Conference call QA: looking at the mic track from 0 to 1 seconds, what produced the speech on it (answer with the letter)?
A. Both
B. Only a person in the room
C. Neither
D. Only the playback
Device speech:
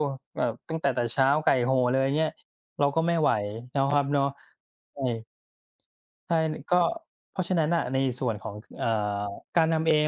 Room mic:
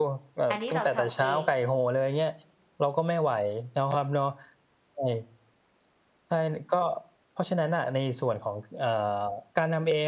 A